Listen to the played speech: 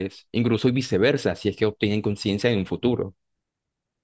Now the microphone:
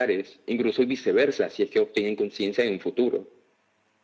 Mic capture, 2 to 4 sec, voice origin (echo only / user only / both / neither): echo only